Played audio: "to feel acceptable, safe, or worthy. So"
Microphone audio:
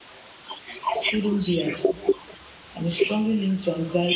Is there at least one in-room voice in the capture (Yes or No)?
Yes